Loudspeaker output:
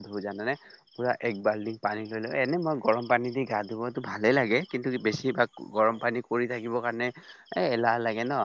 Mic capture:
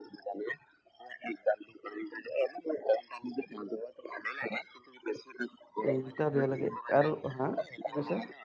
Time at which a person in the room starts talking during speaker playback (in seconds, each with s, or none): 5.9 s